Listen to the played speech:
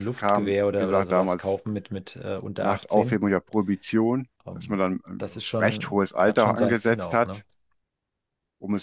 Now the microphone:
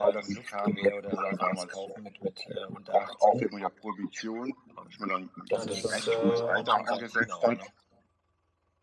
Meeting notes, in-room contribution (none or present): present